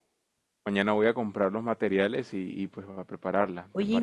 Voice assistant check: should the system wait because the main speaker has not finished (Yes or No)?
No